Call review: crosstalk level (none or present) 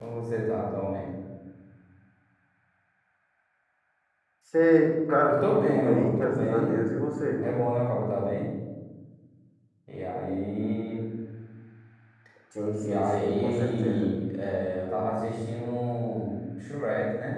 present